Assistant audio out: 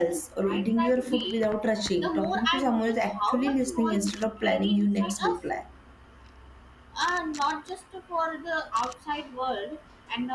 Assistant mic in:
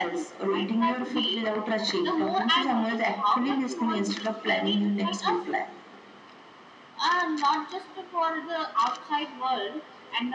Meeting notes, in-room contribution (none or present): none